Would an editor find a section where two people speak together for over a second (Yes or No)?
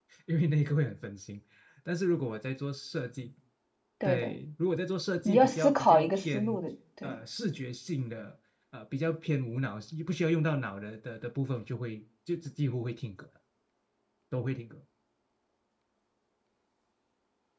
Yes